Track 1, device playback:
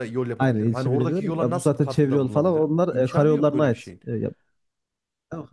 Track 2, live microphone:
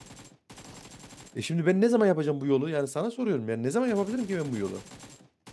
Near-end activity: present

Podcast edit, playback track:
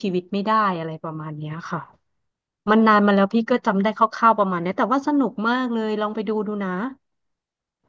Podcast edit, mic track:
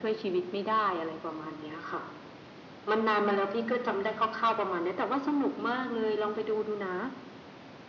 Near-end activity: none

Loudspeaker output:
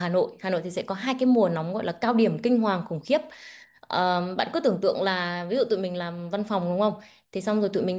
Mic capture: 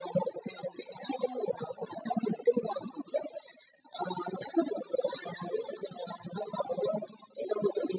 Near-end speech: none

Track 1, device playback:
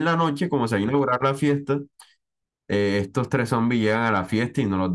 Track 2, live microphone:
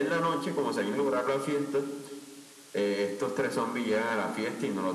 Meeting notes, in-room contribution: none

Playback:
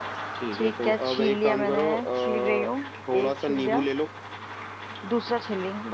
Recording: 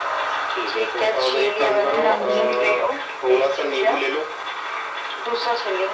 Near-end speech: present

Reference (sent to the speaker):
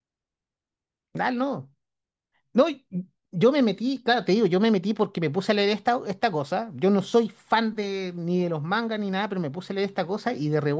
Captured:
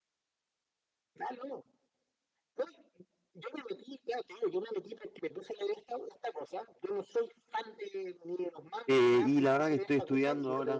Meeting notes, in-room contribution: present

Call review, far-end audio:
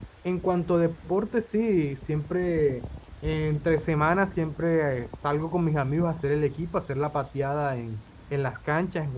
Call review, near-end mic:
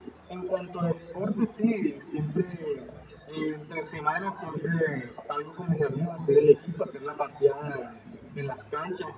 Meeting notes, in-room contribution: none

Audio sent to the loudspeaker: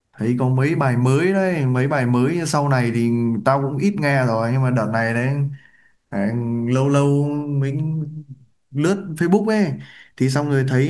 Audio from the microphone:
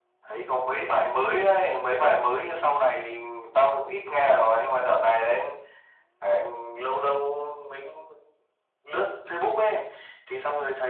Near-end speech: none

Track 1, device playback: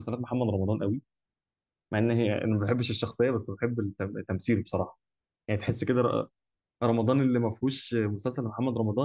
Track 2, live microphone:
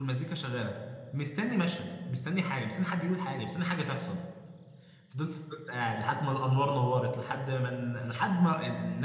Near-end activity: present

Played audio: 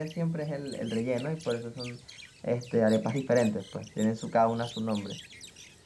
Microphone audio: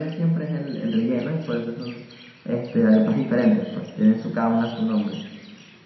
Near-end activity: none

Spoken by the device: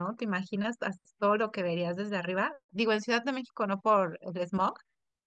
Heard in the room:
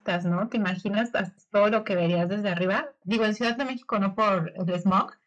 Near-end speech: none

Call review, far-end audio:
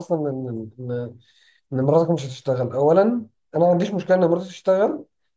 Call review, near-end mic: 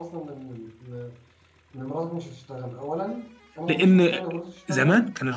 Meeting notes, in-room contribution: present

